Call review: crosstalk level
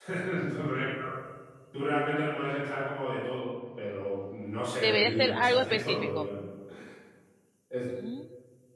present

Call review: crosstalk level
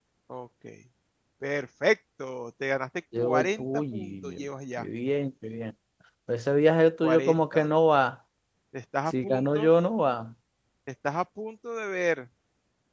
present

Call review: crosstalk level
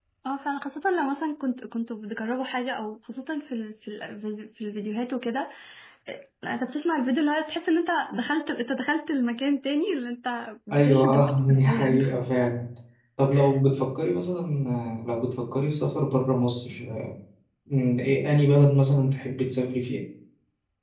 present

